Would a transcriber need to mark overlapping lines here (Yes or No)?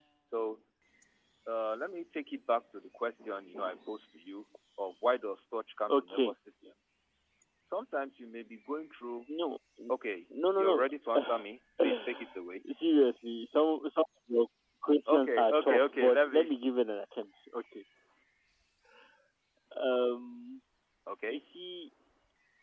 Yes